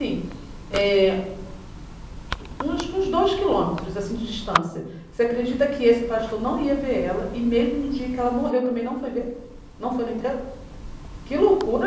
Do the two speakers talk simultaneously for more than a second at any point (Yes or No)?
No